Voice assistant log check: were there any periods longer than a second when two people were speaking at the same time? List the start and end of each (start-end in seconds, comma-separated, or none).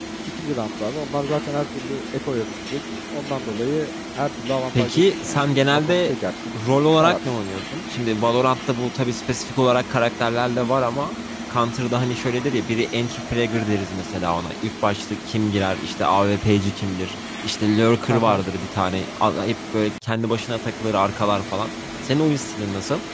4.7-6.1